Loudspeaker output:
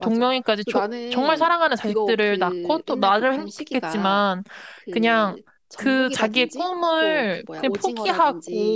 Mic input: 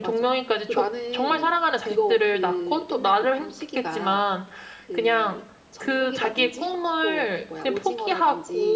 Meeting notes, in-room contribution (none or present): none